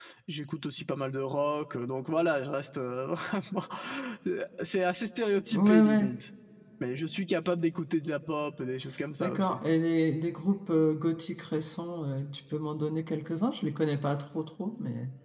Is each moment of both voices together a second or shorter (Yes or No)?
Yes